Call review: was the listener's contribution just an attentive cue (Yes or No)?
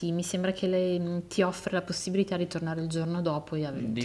No